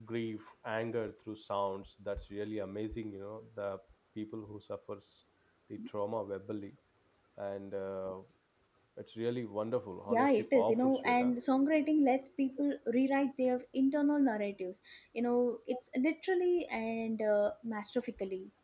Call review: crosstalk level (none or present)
present